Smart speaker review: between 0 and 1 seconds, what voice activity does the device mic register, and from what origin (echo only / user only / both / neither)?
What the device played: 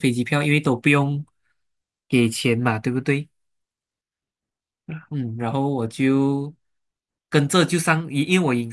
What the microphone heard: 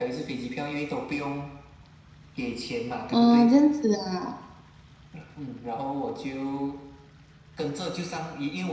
echo only